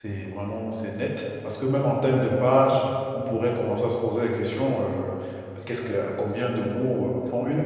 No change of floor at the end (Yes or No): No